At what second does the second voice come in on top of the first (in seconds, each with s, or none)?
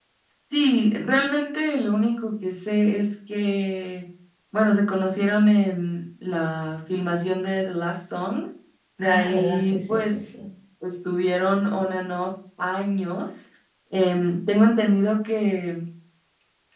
9.0 s